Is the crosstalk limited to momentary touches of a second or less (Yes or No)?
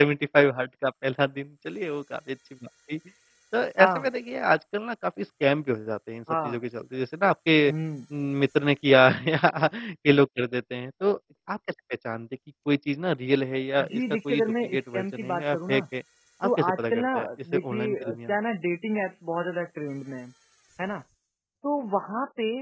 No